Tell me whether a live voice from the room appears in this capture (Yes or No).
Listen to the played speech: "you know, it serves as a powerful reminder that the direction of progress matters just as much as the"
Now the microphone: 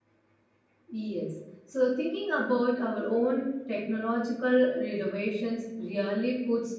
Yes